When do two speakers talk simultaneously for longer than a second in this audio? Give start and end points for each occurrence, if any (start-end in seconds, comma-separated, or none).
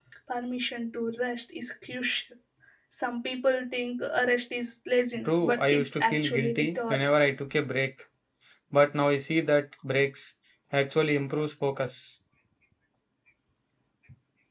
5.2-7.0